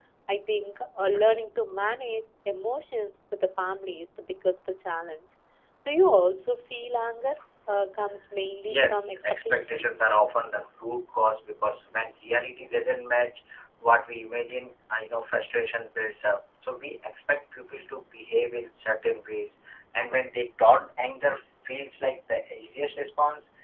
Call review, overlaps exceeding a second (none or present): present